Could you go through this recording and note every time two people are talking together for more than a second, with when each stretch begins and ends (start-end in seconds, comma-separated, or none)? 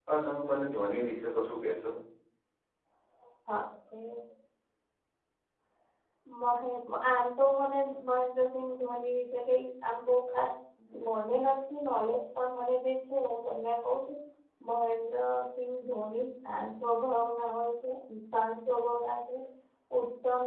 none